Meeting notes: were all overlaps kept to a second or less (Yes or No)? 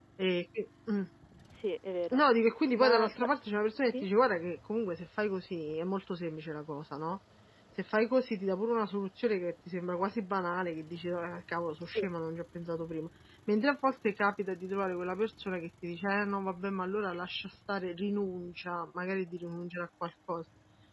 Yes